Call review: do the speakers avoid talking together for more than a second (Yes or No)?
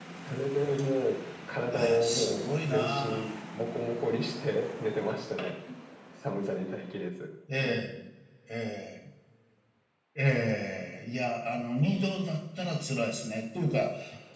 No